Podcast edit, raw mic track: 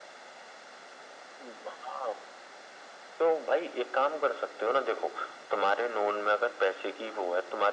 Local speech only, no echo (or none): none